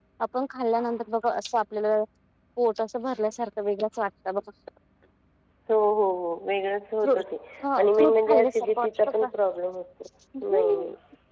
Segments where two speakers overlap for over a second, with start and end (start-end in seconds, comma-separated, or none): 7.8-9.3